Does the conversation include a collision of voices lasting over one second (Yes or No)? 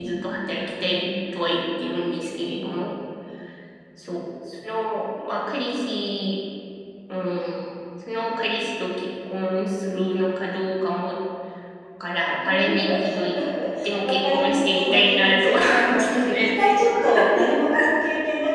Yes